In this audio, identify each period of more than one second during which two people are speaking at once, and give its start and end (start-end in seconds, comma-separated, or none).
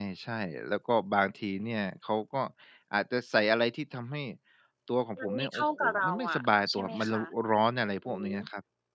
5.2-7.2